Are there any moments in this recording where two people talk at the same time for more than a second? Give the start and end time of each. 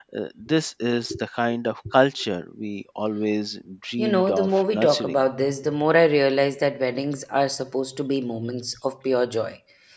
4.0-5.2

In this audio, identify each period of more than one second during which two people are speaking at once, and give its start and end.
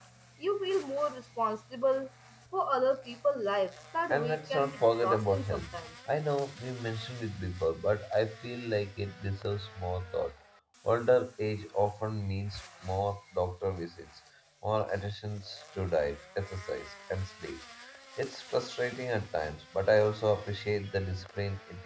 4.1-5.7

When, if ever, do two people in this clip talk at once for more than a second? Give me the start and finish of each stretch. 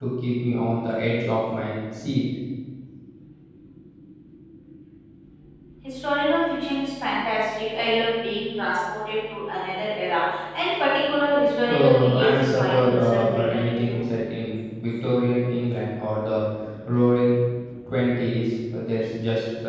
11.7-14.0

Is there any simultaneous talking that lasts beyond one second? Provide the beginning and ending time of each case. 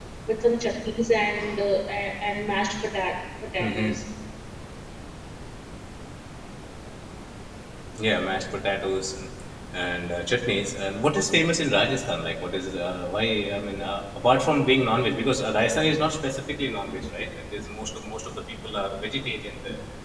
none

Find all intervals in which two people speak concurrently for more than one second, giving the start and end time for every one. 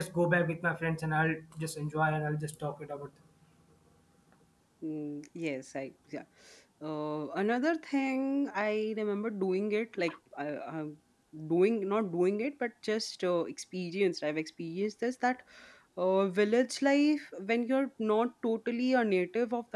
none

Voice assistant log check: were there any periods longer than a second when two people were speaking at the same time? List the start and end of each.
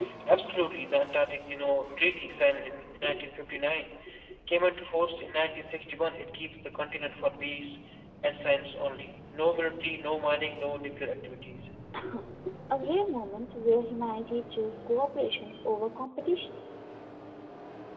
none

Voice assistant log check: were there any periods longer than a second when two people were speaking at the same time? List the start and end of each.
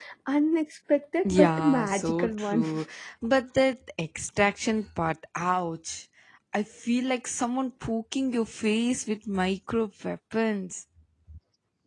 1.3-2.6

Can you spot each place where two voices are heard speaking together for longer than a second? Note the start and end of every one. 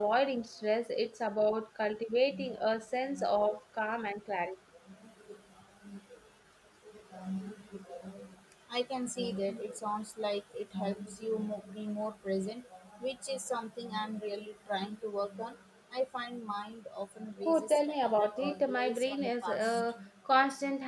17.4-19.8

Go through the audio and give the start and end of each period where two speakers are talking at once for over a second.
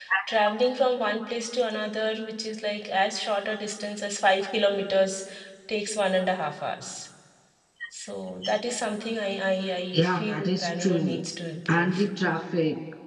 9.9-11.2

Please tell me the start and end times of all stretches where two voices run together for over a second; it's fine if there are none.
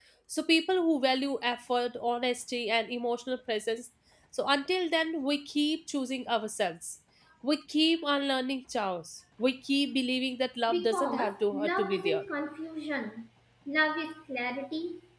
10.7-12.2

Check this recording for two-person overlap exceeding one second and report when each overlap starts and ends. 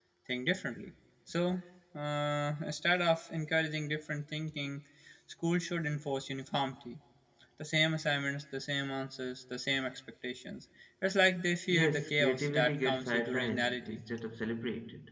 11.7-14.0

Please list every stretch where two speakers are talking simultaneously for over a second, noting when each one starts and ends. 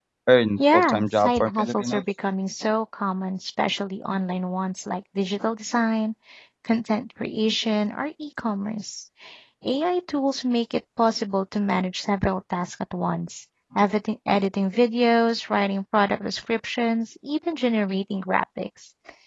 0.6-2.0

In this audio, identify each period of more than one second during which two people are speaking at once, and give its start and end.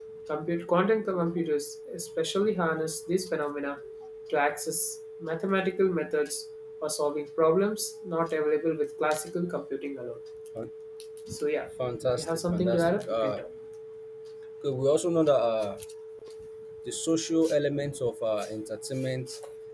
12.2-13.4

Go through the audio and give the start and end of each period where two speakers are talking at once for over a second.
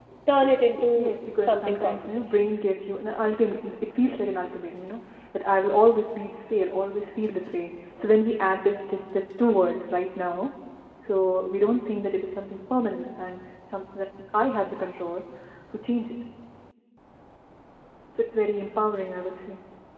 1.0-2.2

